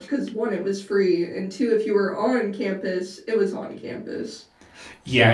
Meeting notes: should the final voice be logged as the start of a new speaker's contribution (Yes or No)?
Yes